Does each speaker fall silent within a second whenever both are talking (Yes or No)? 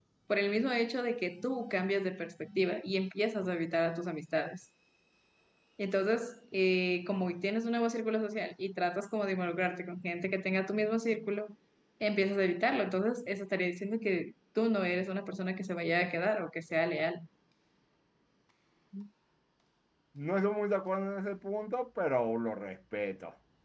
Yes